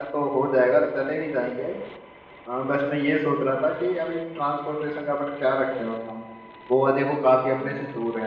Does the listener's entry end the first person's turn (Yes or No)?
No